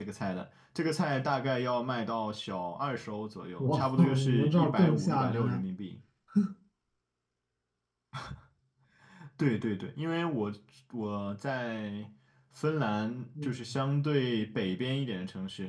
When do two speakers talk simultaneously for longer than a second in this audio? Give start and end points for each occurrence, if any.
3.6-5.6

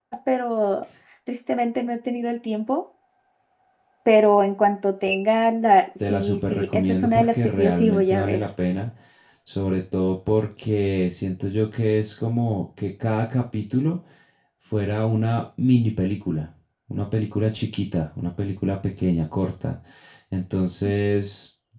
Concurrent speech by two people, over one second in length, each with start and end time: 6.0-8.4

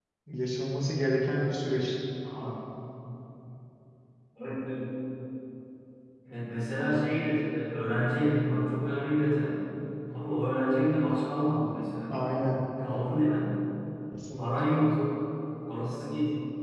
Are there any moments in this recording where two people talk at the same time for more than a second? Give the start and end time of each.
none

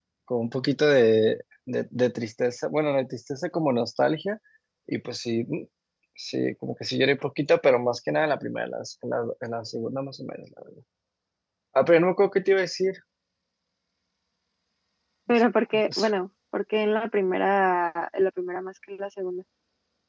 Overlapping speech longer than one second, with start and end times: none

